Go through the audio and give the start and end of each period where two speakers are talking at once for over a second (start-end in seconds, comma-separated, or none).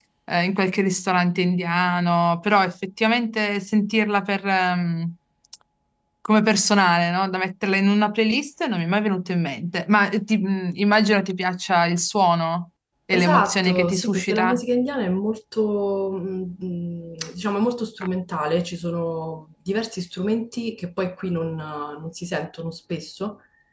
13.1-14.6